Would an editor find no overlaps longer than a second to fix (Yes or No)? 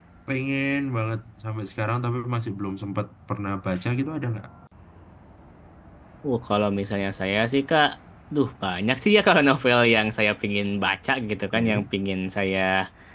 Yes